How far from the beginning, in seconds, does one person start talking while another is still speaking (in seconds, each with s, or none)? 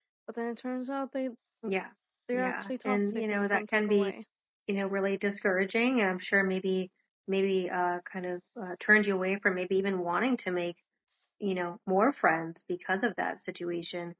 2.3 s